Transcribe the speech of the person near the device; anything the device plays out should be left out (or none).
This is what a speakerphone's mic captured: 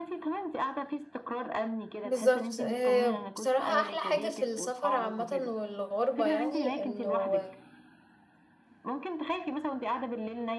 بالظبط آه، بصراحة أحلى حاجة في السفر عامة والغربة يعني إنه